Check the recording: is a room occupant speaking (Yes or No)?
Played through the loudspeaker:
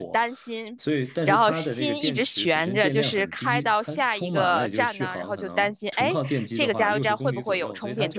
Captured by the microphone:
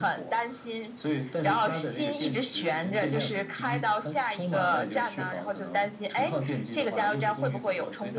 No